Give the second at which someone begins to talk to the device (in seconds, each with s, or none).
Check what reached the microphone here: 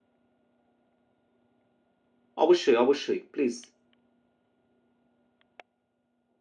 2.4 s